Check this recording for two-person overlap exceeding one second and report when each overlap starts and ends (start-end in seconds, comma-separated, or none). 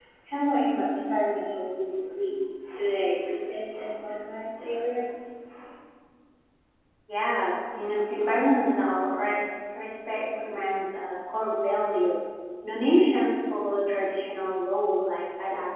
none